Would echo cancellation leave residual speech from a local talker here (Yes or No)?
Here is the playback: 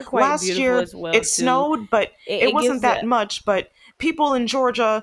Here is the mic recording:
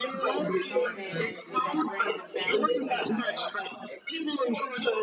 Yes